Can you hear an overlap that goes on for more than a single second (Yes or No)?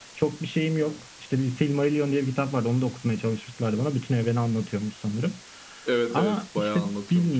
Yes